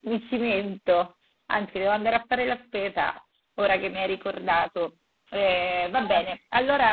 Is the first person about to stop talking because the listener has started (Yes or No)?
No